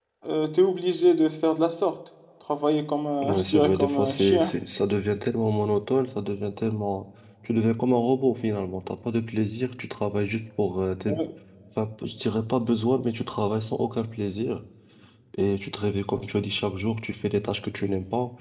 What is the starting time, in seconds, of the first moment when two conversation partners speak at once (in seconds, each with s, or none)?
3.2 s